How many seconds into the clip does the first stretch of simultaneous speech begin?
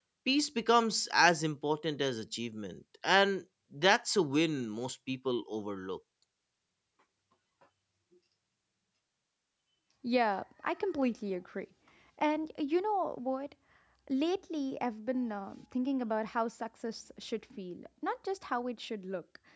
none

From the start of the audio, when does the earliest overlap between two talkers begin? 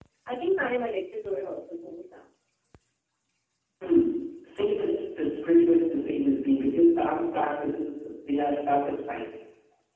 none

